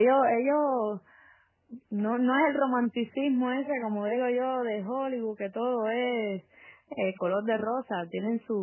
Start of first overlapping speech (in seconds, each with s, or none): none